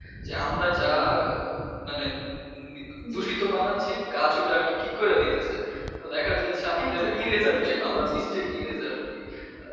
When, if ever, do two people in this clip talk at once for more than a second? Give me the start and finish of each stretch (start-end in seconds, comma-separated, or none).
6.8-8.2